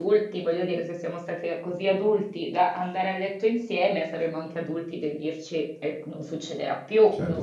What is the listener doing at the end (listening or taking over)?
taking over